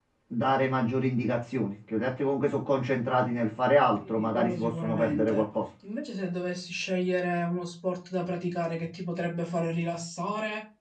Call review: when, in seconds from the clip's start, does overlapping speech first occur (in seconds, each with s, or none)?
4.0 s